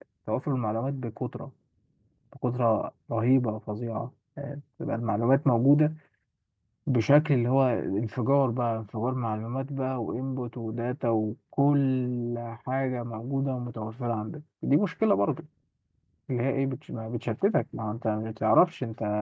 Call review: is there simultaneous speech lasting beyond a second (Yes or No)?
No